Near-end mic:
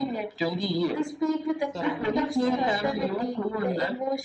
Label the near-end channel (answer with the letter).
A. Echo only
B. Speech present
B